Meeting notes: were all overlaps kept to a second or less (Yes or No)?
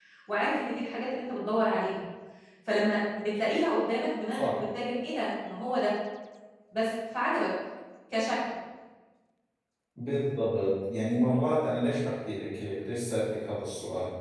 Yes